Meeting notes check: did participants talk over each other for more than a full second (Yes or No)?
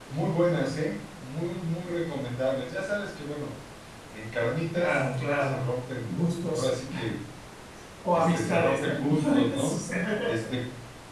Yes